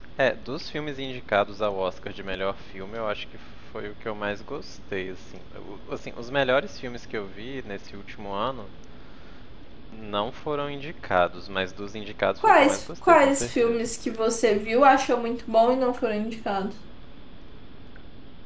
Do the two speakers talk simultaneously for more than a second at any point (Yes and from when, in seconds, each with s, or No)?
Yes, from 12.4 s